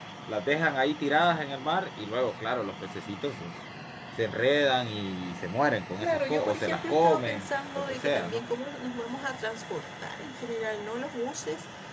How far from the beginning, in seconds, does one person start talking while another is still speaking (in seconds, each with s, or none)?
6.0 s